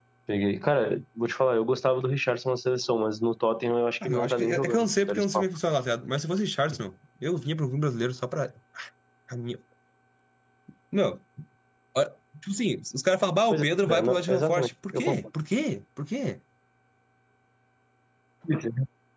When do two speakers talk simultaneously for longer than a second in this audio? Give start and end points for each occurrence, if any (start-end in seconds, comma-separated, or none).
4.0-5.4, 13.5-15.2